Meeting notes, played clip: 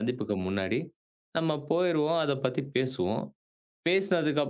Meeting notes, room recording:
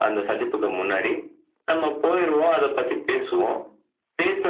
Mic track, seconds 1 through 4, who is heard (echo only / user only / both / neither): echo only